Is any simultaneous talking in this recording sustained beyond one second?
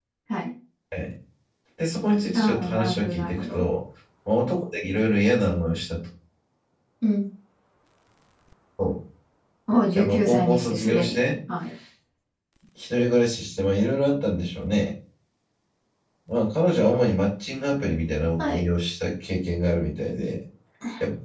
Yes, from 2.3 s

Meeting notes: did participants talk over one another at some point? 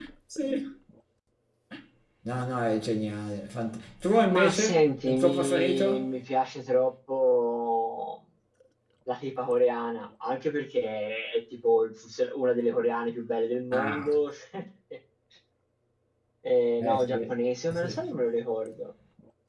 Yes, from 4.3 s

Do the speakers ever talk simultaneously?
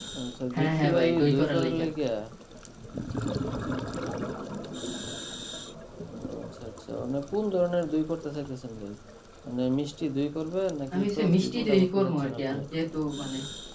Yes, from 0.5 s

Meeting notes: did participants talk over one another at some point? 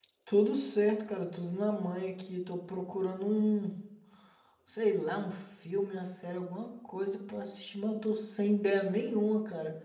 No

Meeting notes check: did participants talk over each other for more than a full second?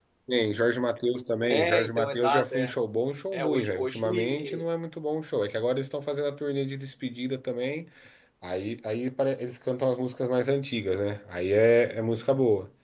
Yes, from 1.5 s

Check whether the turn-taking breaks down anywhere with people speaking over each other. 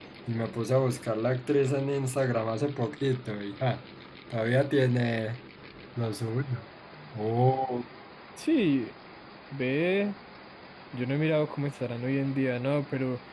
No

